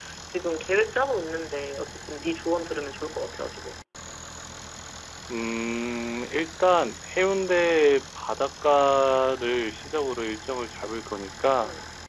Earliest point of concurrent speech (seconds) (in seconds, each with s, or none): none